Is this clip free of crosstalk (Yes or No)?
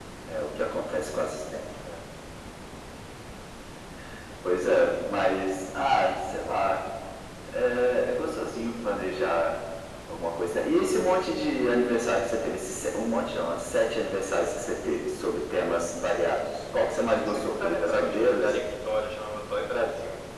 No